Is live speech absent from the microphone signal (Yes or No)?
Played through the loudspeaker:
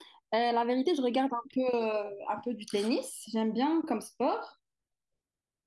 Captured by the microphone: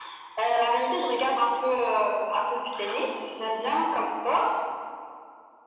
Yes